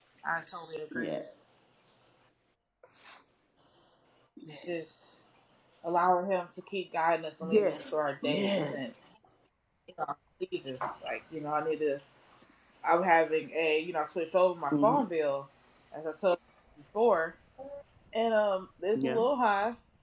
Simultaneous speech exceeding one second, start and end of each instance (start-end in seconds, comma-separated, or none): 7.4-8.9